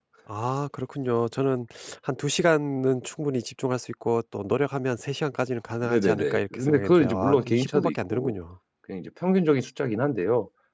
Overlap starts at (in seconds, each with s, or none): 5.8 s